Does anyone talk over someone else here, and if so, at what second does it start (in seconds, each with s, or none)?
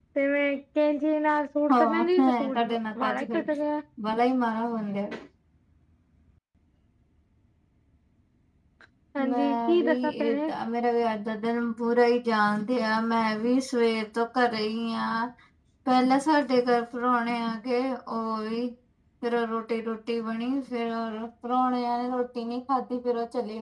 1.7 s